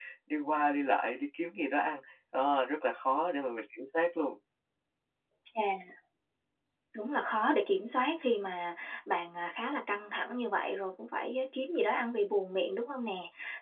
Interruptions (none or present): none